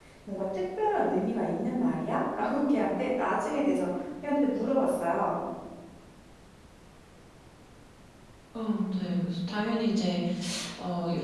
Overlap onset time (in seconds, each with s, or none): none